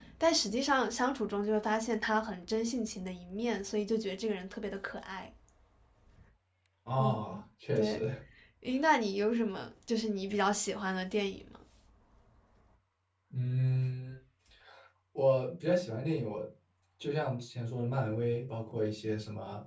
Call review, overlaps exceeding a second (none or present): none